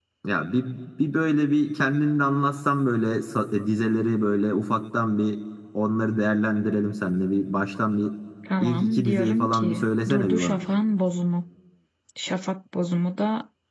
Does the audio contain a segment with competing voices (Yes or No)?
Yes